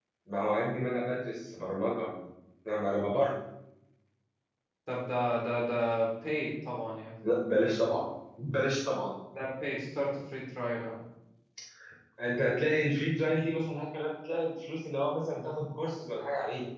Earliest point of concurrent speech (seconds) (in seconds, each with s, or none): none